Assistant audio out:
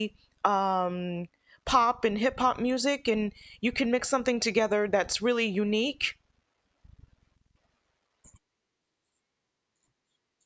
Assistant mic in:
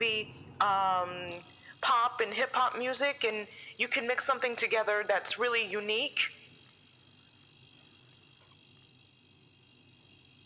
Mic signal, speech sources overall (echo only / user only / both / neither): echo only